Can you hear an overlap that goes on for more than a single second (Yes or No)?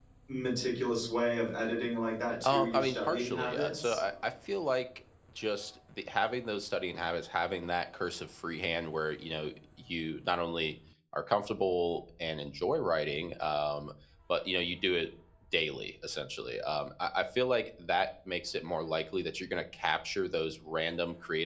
Yes